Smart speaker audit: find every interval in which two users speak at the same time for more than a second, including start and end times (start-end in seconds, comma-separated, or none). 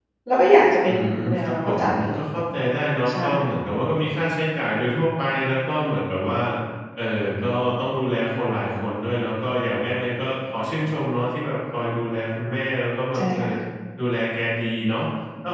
0.8-2.2